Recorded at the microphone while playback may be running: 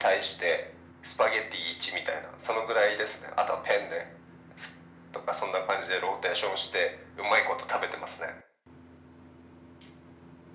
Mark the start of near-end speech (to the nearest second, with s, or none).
none